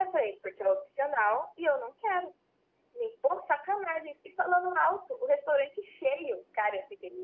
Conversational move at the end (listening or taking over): listening